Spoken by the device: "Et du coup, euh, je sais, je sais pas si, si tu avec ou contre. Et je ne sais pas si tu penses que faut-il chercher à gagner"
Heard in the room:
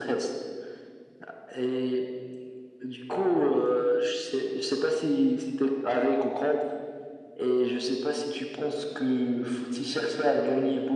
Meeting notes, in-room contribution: none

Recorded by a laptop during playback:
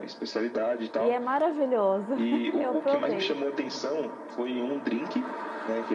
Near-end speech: present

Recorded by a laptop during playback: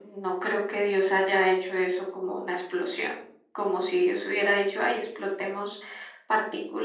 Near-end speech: none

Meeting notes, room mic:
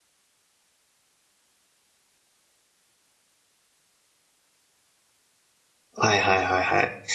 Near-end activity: present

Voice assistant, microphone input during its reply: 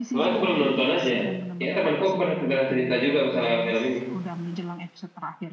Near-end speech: present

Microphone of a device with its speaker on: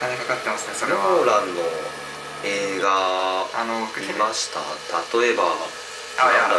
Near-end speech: none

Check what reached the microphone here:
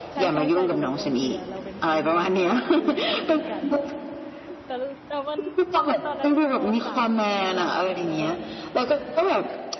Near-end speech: present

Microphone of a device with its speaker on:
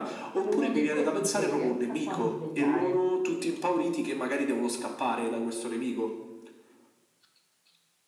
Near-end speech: present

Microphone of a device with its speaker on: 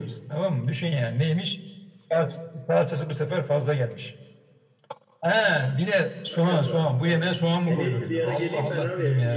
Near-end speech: present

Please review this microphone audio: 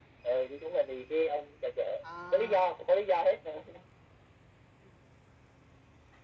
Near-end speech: present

